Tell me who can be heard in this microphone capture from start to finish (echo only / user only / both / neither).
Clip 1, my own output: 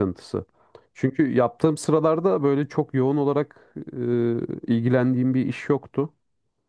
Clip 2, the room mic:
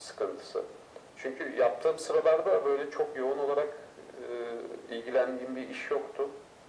echo only